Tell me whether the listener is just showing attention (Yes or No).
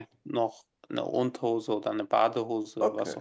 No